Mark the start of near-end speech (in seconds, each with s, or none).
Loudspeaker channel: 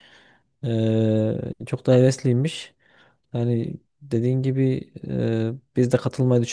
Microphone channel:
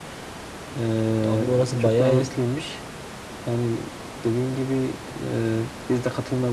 1.3 s